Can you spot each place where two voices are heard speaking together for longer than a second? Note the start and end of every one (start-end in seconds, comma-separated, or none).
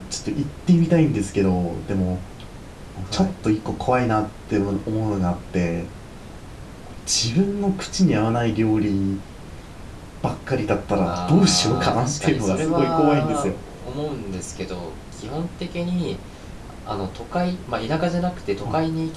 11.0-13.6